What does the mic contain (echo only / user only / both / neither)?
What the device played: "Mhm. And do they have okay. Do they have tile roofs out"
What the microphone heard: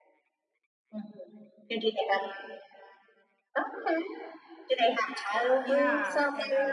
both